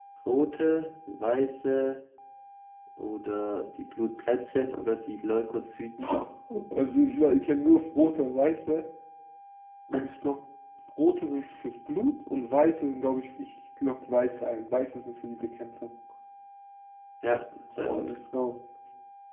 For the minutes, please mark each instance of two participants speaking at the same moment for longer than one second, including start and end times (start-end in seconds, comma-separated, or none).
none